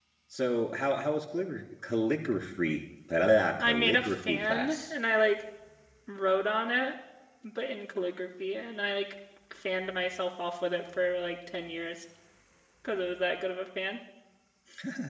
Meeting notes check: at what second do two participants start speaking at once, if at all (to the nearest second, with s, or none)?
4 s